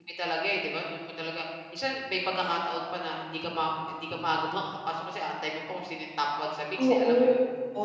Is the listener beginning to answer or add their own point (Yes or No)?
Yes